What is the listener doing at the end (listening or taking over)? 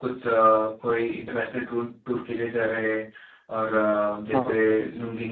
listening